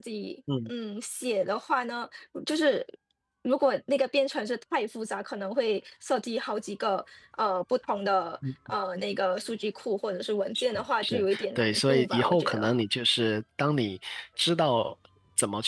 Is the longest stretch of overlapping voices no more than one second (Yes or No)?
No